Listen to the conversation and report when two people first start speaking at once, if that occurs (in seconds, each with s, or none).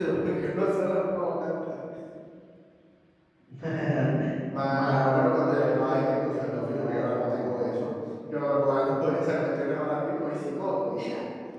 4.7 s